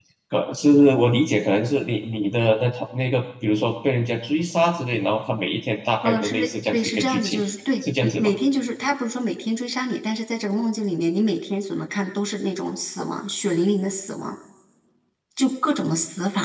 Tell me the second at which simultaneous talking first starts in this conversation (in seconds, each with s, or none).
6.0 s